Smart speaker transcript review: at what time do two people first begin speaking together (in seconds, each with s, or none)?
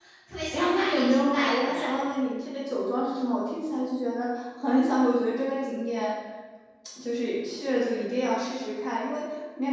0.5 s